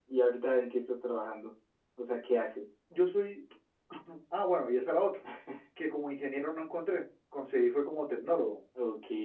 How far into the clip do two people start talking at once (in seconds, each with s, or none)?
none